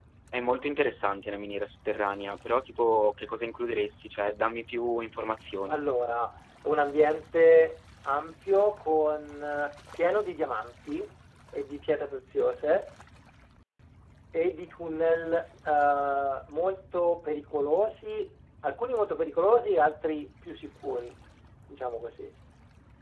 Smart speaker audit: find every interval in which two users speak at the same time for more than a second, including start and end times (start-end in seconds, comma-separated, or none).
none